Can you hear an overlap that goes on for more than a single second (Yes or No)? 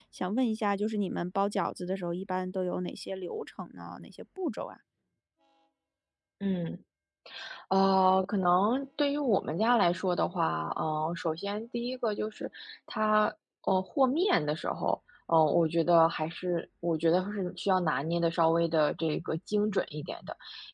No